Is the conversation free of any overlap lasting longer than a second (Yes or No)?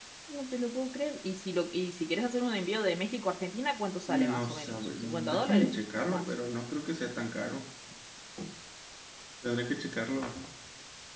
No